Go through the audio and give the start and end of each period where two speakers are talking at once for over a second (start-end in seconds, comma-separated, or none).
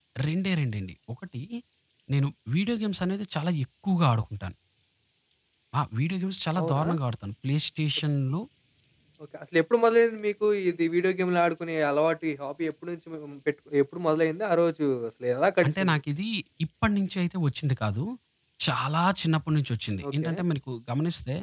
none